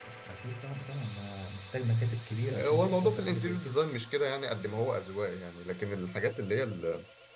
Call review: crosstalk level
present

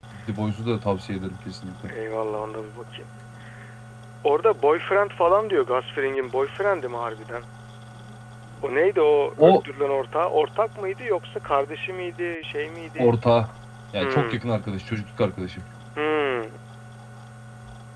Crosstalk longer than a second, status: none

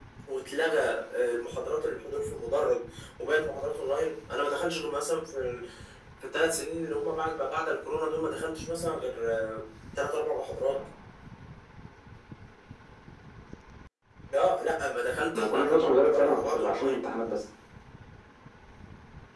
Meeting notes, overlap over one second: present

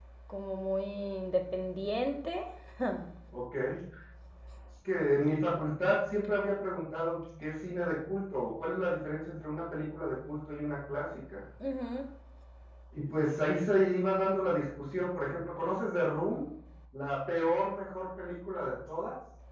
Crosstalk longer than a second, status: none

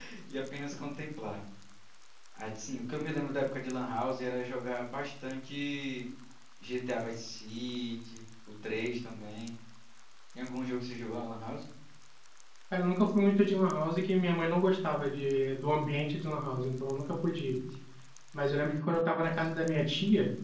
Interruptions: none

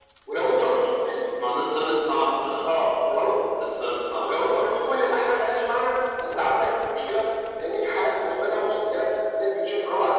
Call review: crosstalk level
none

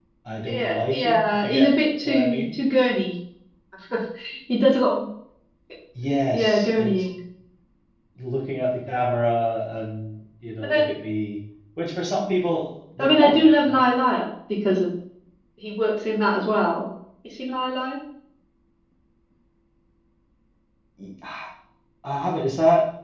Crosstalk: present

